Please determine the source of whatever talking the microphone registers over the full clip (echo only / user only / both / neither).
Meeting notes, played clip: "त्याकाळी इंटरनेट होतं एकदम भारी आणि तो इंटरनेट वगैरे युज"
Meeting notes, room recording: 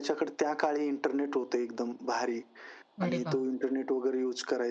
both